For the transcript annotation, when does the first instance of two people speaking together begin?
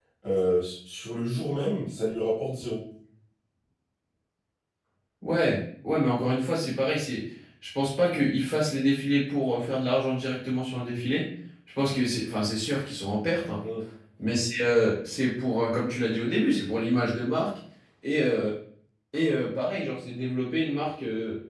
none

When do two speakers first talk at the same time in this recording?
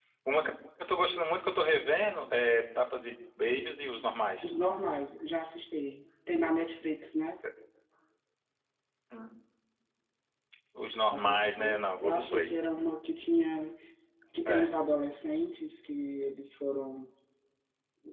11 s

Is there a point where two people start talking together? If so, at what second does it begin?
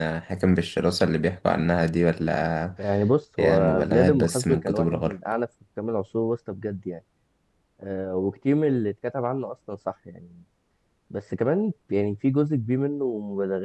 3 s

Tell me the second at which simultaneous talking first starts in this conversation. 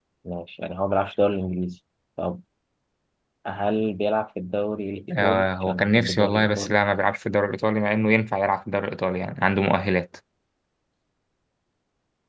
5 s

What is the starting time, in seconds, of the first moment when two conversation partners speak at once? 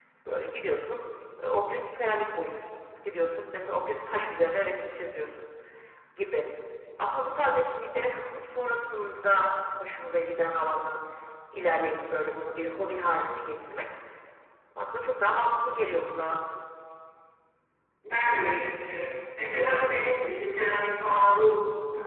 none

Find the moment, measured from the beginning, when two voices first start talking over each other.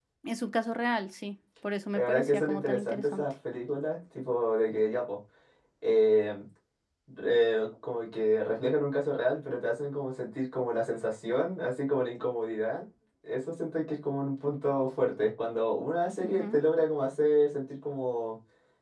2 s

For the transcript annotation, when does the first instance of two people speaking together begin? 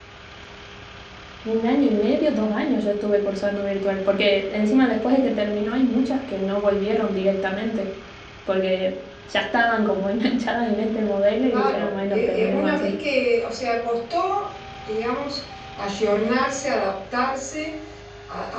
11 s

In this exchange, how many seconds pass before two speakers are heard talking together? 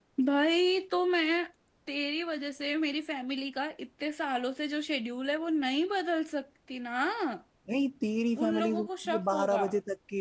8 s

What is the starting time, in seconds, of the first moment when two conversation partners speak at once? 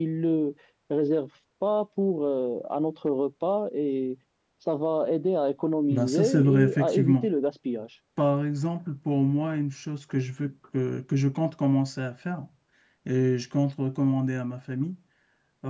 6 s

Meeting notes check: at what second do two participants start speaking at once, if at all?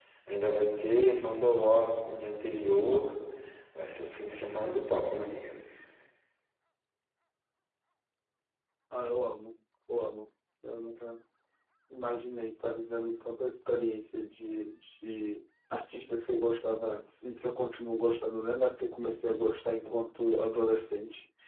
none

